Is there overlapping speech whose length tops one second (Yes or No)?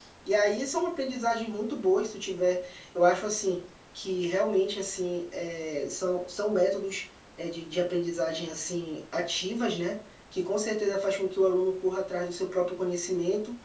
No